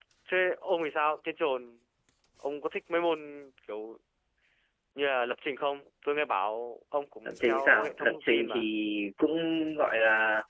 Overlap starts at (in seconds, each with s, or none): 7.2 s